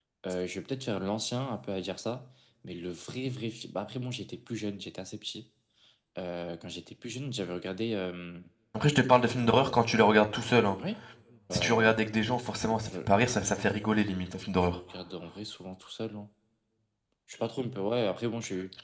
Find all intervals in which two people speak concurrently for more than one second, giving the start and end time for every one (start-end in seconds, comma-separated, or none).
none